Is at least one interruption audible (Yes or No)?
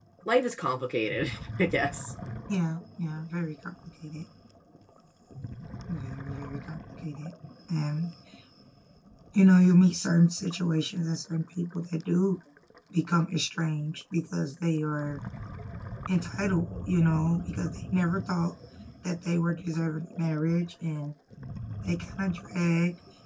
No